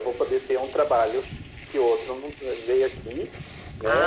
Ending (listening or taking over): taking over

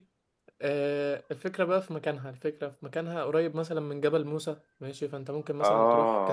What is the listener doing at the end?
listening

